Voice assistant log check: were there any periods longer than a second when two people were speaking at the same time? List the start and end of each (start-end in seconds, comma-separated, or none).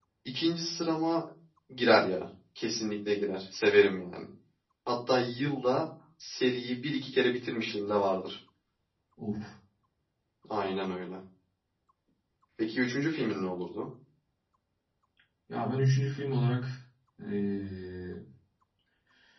none